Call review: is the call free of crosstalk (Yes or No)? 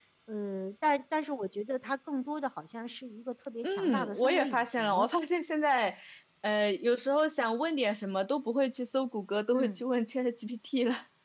No